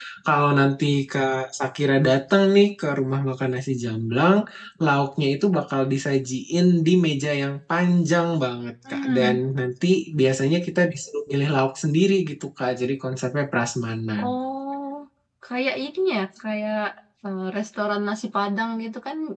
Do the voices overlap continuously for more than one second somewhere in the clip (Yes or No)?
No